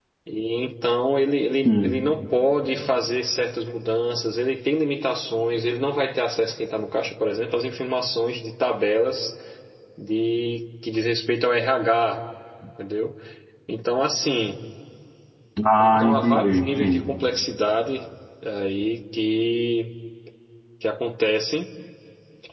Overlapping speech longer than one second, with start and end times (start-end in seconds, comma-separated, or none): 15.8-17.1